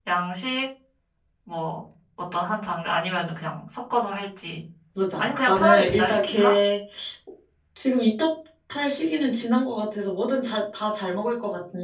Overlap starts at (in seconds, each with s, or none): 5.2 s